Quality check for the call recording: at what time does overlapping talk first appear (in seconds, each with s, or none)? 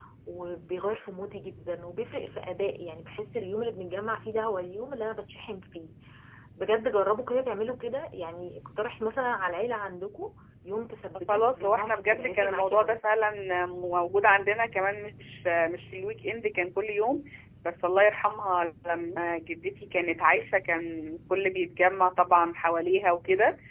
11.3 s